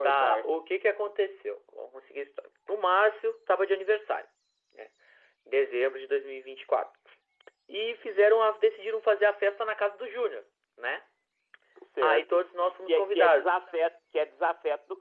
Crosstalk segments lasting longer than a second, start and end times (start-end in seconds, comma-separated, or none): 12.0-13.5